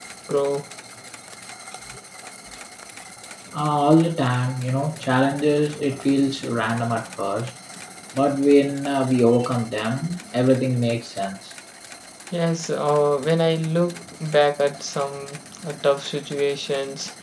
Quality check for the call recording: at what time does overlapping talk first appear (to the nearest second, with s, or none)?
none